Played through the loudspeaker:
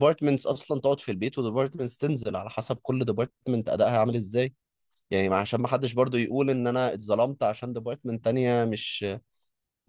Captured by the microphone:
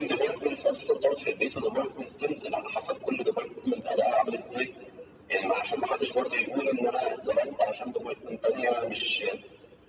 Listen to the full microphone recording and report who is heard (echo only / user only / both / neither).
echo only